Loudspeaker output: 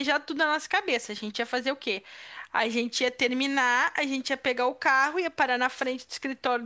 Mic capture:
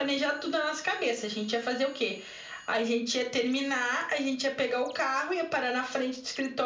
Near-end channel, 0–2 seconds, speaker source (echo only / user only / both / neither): echo only